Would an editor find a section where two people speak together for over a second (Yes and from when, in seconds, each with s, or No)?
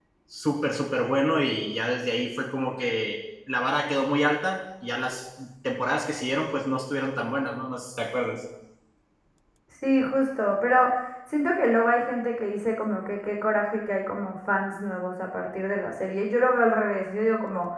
No